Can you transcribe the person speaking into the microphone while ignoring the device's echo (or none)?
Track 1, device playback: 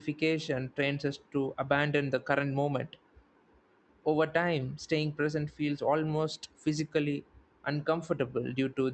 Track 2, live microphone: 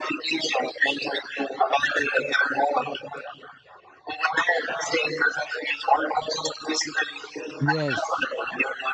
Yes,